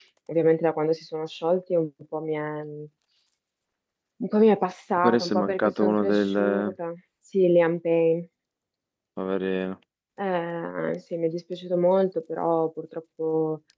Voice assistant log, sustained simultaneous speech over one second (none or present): present